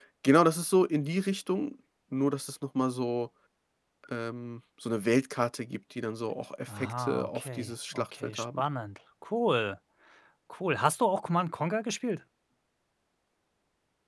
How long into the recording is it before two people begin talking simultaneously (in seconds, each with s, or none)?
6.7 s